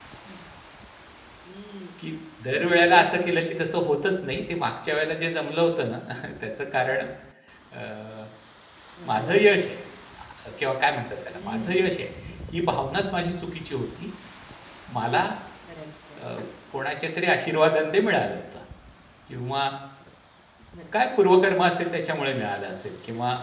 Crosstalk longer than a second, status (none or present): present